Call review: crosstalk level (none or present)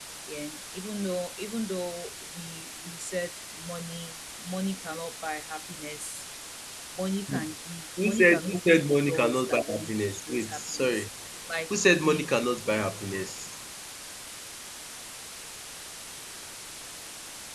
present